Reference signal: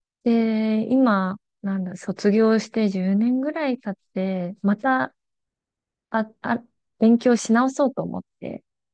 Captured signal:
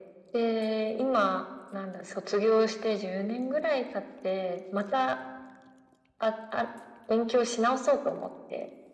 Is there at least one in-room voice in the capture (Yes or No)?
No